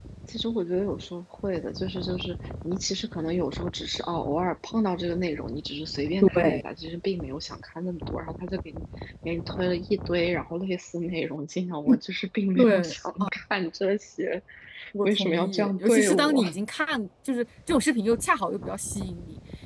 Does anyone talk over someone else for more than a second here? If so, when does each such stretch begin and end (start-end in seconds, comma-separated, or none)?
15.0-16.4